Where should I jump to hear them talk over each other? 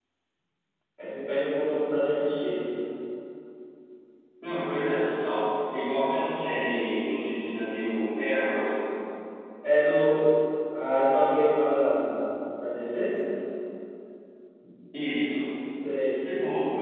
none

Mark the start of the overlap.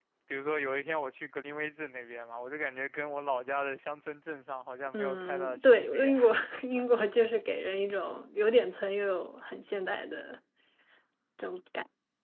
4.9 s

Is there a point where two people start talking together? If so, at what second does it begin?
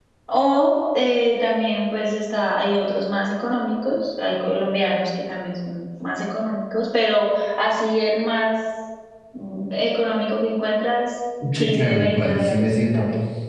11.4 s

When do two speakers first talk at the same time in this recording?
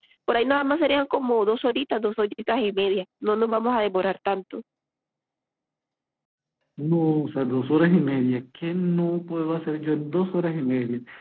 none

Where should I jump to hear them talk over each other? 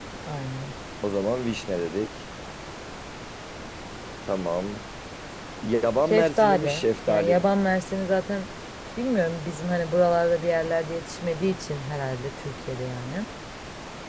6.1 s

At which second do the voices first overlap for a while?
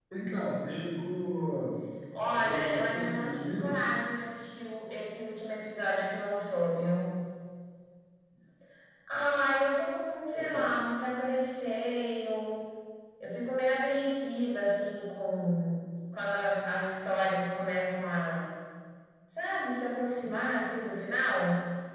2.3 s

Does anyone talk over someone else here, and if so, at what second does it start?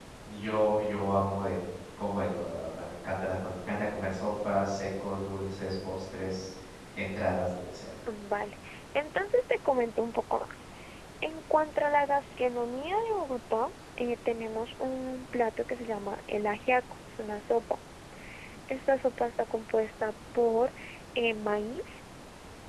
none

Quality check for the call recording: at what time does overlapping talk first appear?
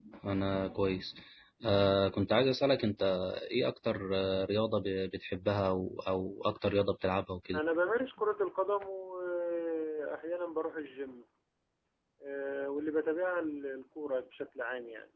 none

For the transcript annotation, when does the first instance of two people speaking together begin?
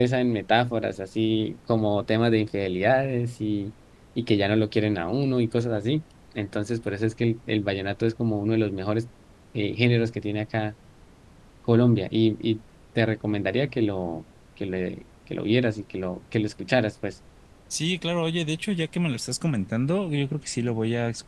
none

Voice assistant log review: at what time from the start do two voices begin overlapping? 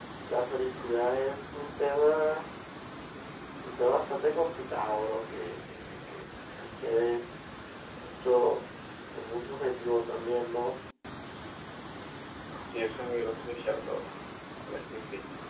none

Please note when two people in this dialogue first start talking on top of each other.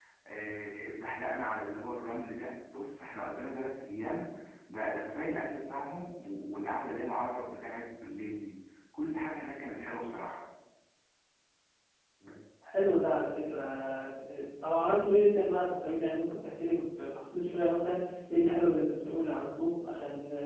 none

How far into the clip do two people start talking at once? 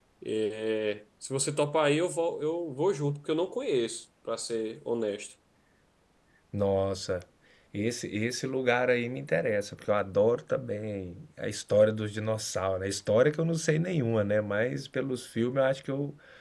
none

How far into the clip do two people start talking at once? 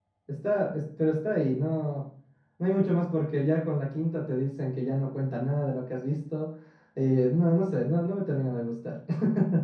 none

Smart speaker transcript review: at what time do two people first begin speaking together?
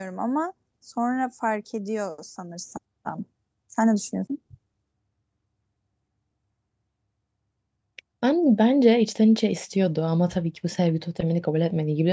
none

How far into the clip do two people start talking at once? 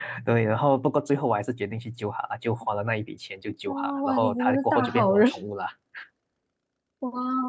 3.7 s

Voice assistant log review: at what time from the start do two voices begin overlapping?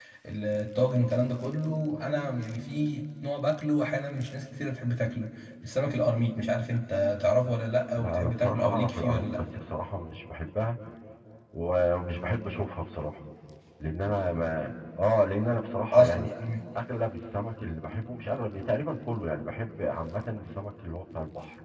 8.0 s

